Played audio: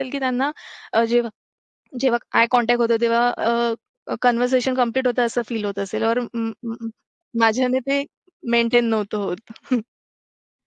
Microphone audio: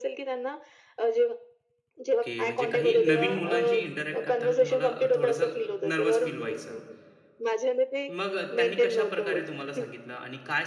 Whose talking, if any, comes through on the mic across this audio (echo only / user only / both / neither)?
both